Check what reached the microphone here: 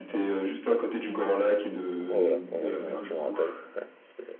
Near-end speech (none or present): present